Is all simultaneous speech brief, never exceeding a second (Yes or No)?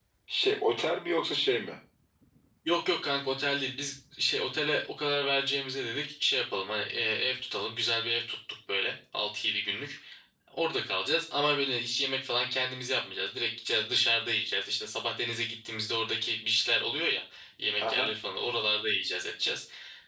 Yes